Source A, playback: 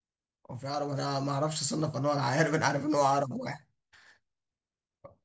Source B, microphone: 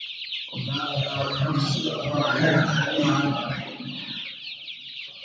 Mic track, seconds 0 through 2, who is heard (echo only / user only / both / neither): echo only